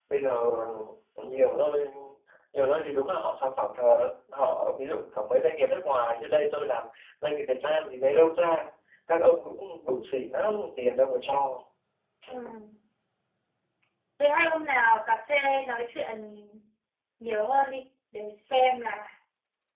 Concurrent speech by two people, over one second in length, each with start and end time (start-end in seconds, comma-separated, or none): none